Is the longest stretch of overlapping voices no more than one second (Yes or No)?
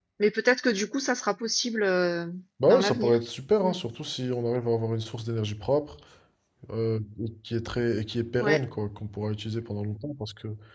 Yes